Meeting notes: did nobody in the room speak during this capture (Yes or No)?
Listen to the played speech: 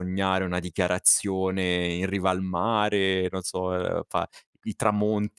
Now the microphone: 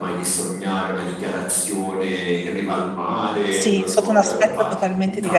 No